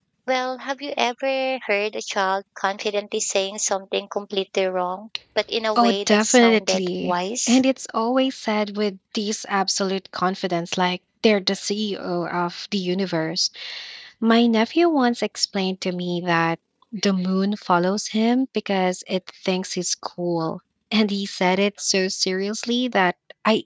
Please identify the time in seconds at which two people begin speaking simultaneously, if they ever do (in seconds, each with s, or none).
5.8 s